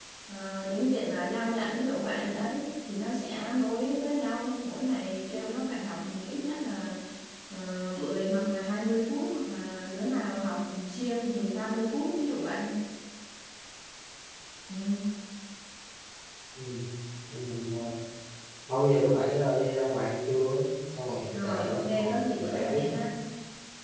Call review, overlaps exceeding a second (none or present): present